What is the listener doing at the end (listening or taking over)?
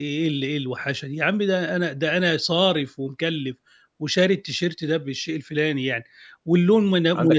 taking over